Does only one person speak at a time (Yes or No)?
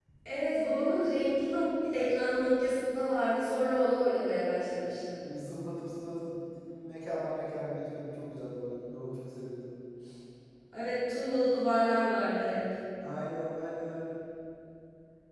Yes